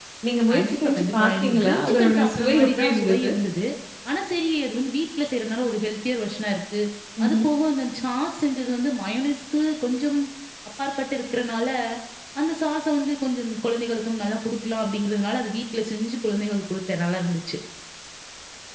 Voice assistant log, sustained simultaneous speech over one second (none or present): present